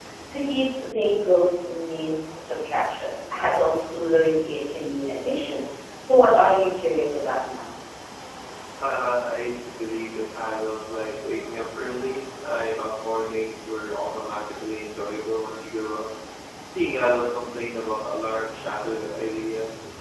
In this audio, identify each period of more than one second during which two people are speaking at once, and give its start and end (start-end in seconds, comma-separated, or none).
none